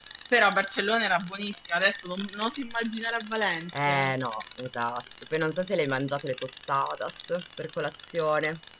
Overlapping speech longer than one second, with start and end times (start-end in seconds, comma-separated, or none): none